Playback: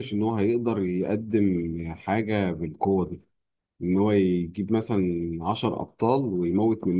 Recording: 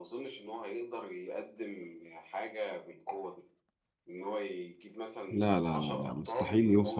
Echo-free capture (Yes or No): No